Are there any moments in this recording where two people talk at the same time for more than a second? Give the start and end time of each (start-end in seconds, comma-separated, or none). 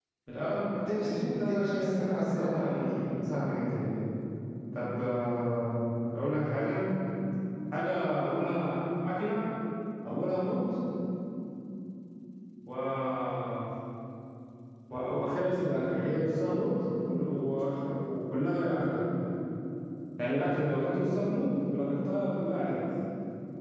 0.9-2.6